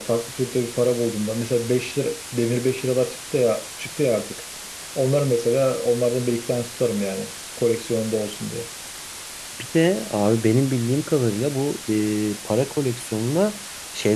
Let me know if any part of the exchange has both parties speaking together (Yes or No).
No